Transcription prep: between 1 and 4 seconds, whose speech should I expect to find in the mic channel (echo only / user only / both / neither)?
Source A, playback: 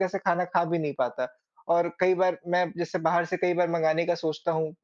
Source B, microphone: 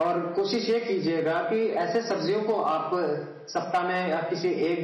user only